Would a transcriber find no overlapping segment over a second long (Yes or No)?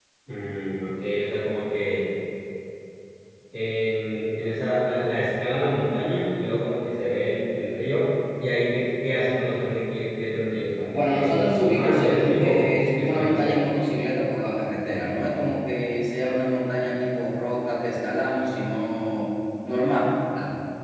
No